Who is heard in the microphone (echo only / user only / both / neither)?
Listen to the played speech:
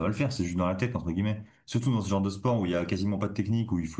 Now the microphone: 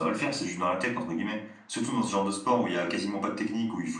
echo only